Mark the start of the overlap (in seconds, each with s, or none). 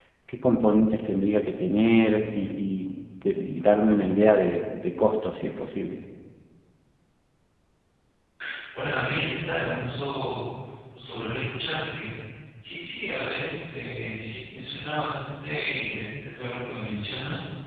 none